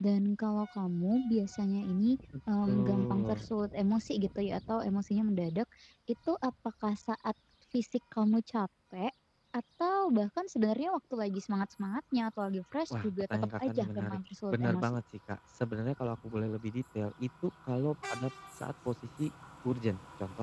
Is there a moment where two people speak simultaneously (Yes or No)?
Yes